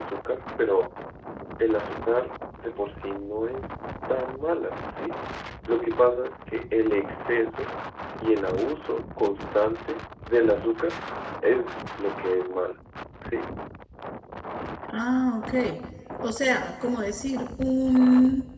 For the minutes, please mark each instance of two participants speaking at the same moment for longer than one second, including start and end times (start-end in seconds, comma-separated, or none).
none